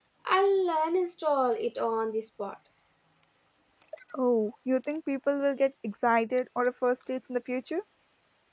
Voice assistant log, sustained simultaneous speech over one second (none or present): none